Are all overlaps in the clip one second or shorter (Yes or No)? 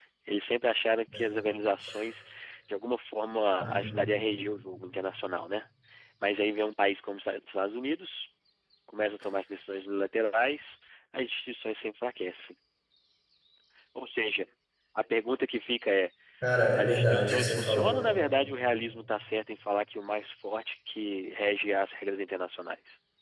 No